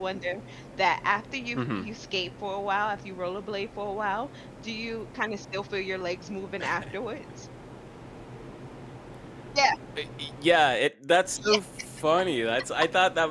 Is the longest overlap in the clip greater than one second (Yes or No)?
No